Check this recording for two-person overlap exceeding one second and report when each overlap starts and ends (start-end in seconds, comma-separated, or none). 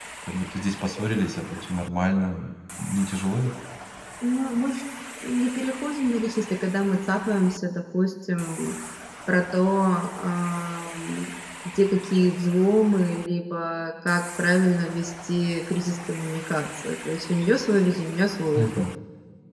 none